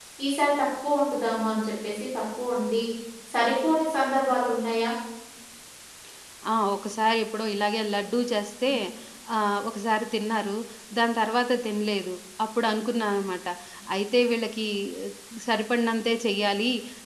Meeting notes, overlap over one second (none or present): none